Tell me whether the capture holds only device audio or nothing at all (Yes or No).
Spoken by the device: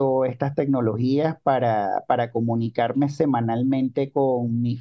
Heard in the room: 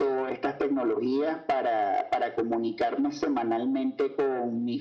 Yes